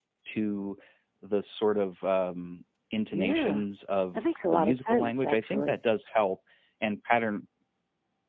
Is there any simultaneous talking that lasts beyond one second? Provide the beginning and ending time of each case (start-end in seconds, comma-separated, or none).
4.1-5.8